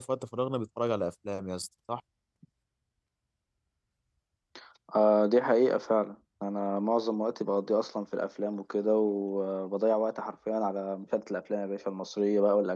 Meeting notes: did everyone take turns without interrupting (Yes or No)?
Yes